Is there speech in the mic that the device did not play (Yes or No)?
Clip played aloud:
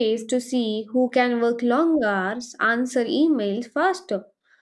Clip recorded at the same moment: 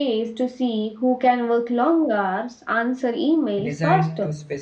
Yes